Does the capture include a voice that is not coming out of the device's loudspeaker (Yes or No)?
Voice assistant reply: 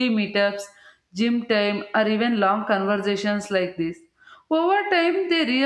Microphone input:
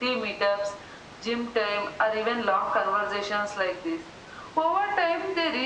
No